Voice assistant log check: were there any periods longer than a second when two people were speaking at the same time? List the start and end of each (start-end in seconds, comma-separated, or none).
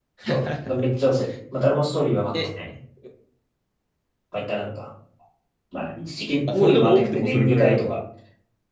6.5-8.0